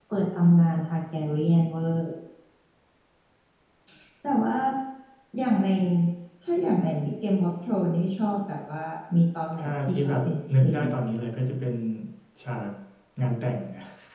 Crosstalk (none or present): present